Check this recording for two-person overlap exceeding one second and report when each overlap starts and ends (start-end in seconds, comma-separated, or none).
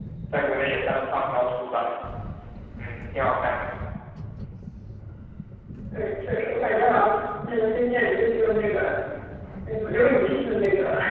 none